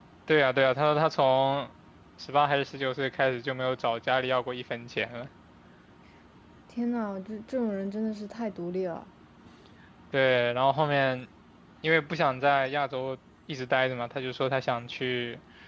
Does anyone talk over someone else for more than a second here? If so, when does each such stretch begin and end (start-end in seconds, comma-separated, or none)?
none